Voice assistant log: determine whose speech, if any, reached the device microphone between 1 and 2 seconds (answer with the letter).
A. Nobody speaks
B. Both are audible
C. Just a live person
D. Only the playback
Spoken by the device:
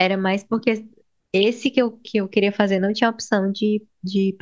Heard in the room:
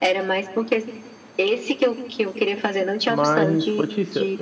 D